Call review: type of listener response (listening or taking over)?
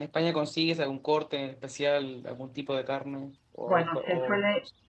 taking over